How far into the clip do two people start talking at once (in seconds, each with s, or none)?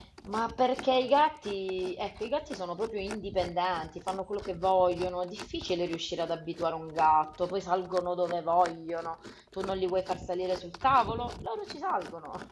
none